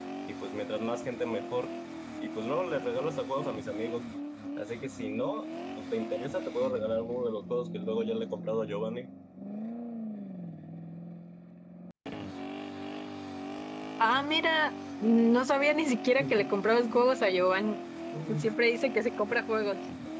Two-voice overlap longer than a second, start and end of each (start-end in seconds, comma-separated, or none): none